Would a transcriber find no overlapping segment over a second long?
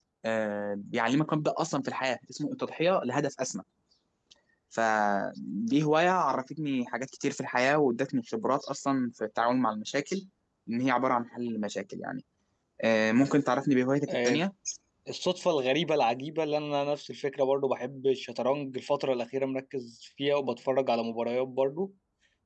Yes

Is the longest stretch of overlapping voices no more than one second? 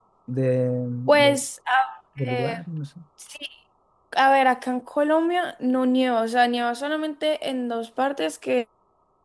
Yes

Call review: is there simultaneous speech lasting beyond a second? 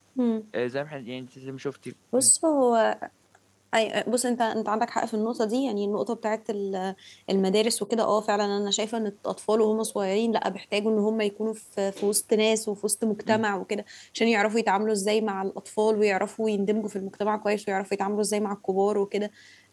No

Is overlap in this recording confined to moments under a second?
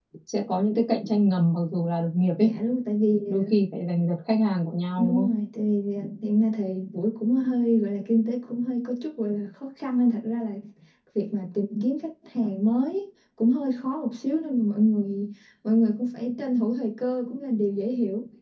Yes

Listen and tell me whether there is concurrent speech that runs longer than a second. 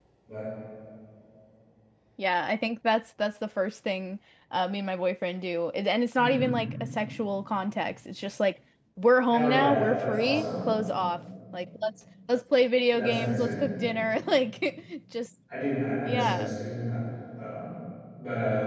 Yes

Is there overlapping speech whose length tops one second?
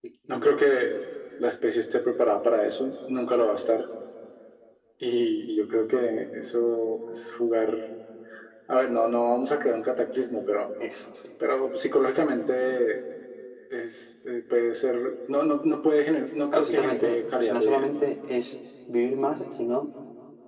Yes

